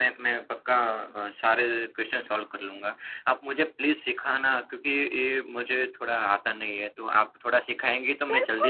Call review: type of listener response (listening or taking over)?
taking over